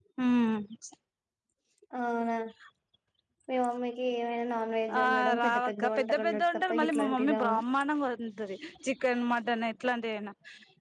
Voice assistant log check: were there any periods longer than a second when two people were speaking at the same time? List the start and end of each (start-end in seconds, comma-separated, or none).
5.0-7.5